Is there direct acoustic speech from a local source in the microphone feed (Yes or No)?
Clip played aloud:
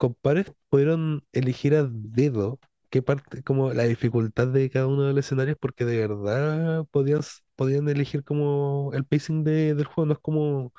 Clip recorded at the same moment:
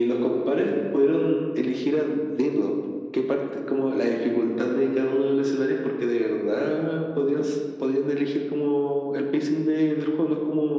No